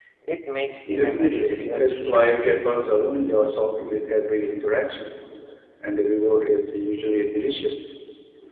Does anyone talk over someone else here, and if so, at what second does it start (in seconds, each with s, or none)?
0.9 s